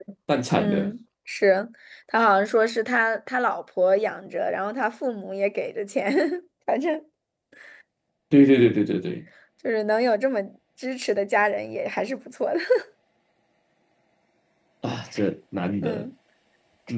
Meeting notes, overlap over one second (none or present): none